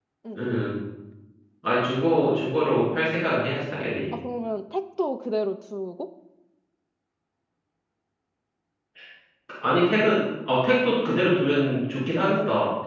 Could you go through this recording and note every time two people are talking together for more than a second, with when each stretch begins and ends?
none

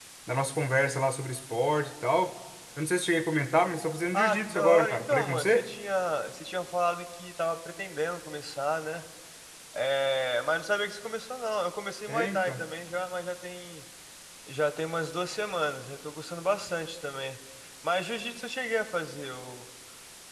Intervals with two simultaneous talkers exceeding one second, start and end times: 4.1-5.7

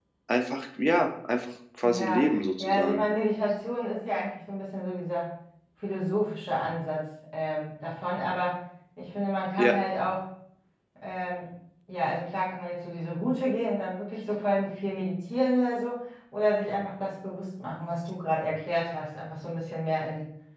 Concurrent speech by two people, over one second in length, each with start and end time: 1.8-3.0

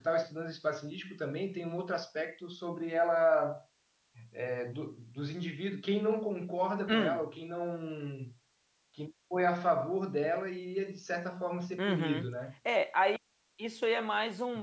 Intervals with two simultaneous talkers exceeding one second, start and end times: none

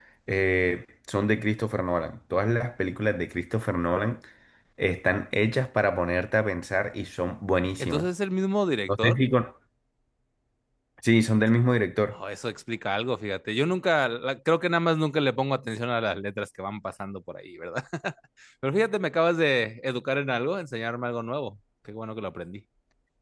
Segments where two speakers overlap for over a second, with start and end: none

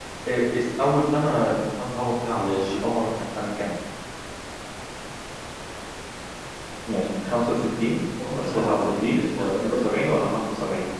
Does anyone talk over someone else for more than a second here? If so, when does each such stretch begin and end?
8.4-9.9

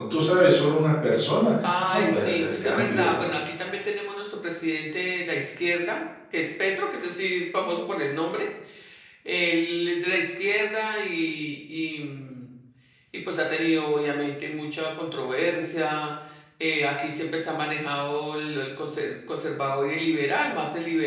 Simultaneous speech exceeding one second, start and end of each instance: 1.6-3.4

